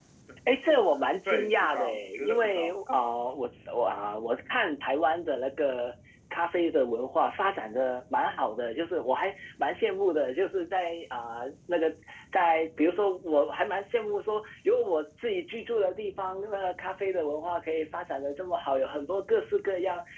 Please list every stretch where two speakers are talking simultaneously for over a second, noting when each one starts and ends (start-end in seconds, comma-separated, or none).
1.3-2.8